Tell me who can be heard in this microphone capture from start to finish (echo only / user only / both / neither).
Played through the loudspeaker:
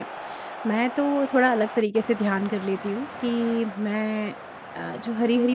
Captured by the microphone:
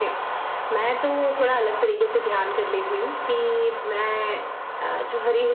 echo only